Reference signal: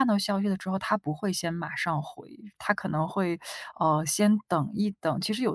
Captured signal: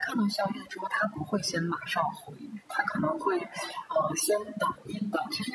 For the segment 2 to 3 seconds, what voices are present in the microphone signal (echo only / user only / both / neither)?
echo only